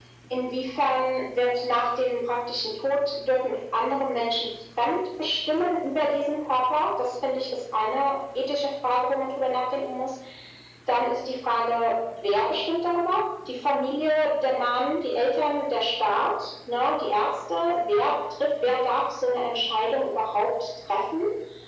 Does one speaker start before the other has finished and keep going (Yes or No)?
No